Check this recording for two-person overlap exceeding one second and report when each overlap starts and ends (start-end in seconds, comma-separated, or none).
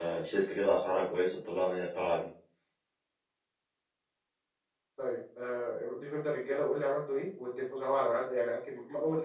none